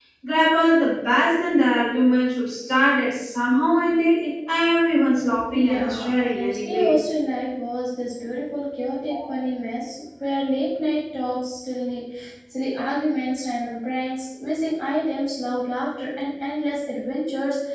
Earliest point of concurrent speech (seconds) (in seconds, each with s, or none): 5.5 s